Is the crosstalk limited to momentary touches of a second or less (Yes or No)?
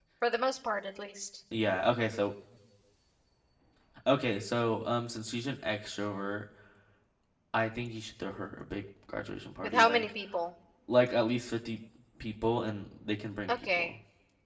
Yes